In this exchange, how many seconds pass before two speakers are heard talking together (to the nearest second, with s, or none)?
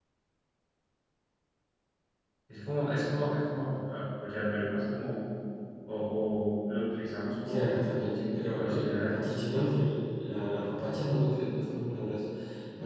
7 s